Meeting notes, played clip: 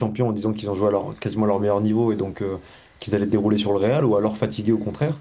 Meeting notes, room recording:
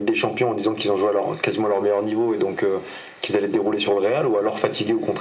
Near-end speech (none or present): none